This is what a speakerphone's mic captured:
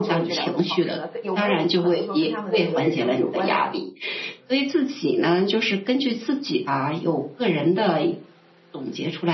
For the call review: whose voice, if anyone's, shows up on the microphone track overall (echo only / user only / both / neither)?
echo only